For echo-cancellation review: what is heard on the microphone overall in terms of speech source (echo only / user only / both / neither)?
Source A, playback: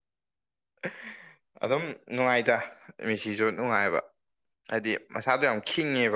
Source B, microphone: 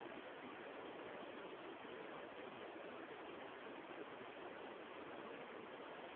neither